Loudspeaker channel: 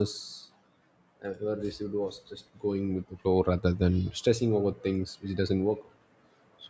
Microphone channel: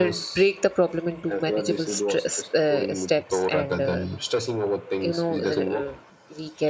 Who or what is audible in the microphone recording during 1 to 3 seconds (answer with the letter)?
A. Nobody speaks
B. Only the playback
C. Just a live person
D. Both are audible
D